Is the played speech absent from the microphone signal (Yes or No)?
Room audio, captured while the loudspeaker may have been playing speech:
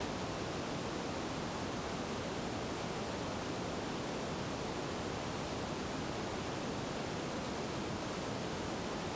Yes